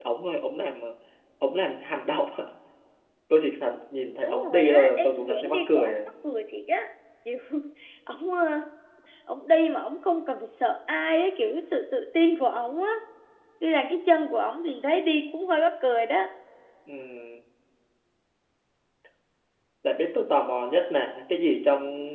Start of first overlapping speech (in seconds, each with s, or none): 4.2 s